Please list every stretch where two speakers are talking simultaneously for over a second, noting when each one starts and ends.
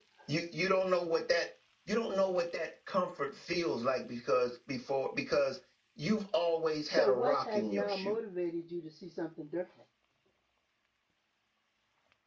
6.8-8.2

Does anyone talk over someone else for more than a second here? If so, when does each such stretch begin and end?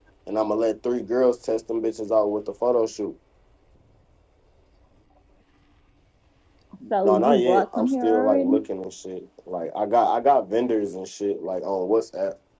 7.0-8.6

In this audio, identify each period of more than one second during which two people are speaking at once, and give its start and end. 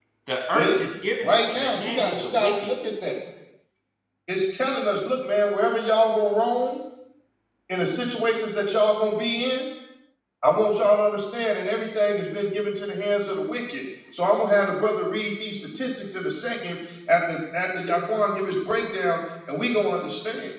1.2-2.5

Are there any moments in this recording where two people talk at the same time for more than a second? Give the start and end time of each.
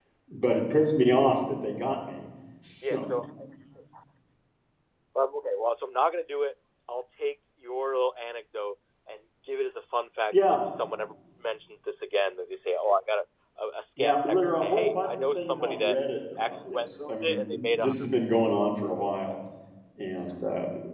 14.0-16.0, 16.4-18.1

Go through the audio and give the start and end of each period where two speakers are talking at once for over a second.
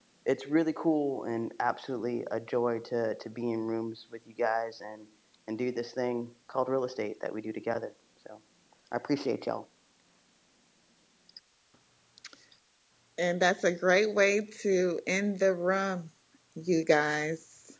none

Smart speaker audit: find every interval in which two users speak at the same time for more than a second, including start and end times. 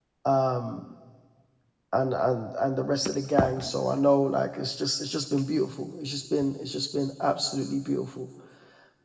none

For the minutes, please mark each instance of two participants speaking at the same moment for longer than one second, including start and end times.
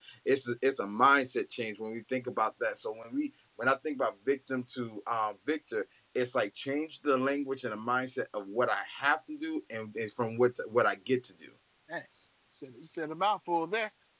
none

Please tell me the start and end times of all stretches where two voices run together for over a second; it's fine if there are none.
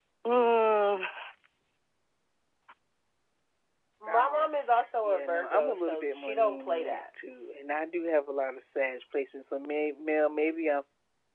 5.0-7.0

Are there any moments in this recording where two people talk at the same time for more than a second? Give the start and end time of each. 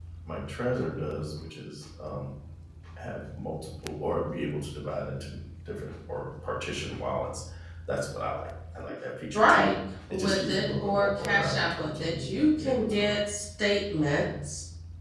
10.1-13.1

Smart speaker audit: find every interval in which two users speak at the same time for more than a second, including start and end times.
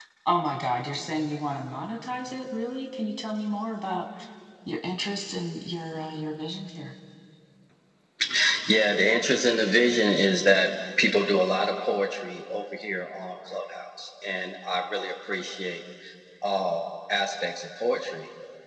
none

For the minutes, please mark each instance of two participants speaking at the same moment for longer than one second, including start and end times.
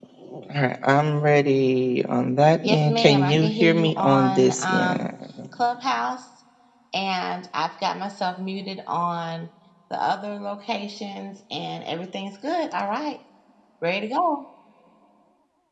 2.6-5.1

